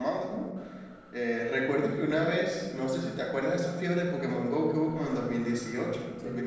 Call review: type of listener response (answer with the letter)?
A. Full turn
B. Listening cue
B